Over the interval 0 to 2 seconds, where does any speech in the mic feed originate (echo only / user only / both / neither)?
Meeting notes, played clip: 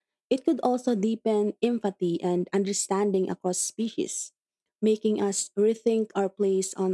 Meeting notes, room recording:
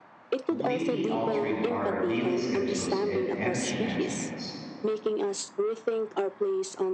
both